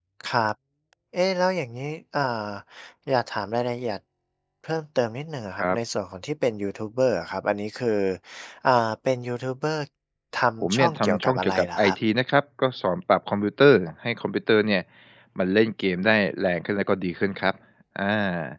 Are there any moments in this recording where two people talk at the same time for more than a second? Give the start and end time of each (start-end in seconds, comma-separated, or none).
10.6-11.9